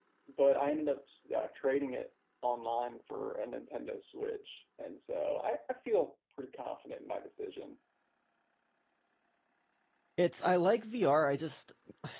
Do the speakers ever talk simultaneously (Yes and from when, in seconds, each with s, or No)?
No